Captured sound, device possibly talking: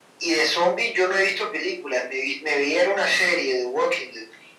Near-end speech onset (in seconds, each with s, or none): none